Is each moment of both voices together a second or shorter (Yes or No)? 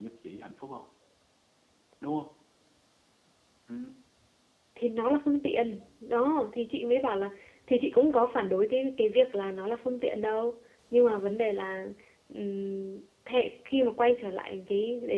Yes